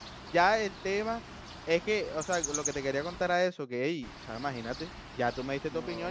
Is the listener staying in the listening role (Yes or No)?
Yes